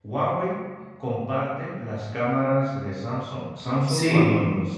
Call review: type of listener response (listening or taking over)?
listening